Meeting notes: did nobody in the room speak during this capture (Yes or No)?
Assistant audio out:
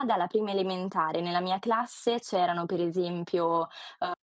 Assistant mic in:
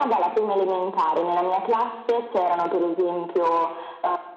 Yes